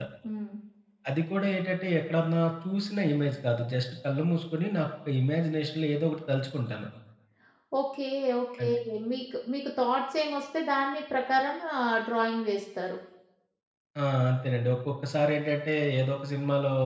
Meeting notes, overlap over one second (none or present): none